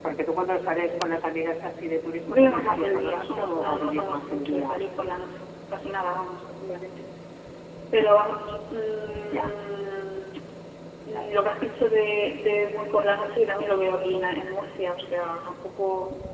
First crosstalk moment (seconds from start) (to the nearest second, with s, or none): 2 s